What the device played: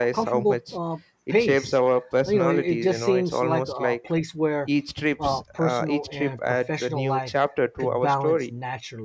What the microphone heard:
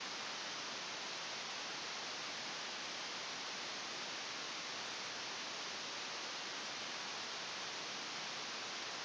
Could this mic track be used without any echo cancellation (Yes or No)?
Yes